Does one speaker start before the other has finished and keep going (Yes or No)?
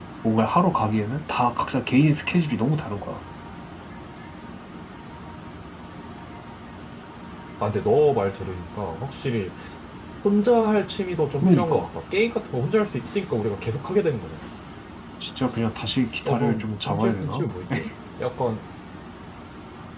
Yes